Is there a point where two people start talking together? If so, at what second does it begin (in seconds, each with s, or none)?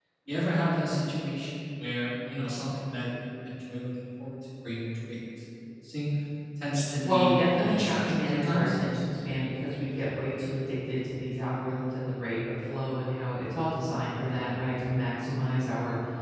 7.0 s